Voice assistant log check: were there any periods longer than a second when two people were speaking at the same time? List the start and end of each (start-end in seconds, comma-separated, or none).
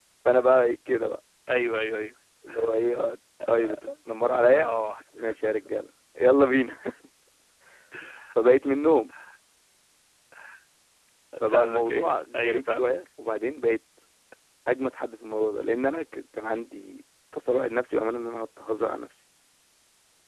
11.5-13.0